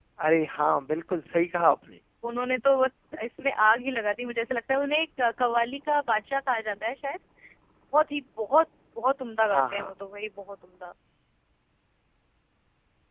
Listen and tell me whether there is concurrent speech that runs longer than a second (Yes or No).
No